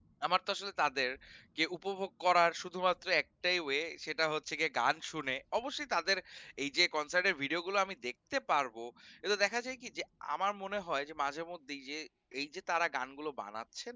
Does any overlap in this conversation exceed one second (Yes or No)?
No